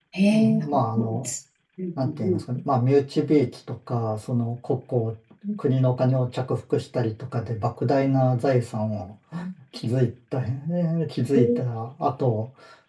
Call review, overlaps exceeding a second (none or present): none